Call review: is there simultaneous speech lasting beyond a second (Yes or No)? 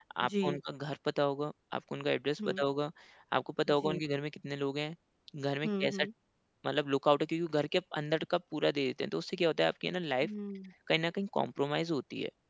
No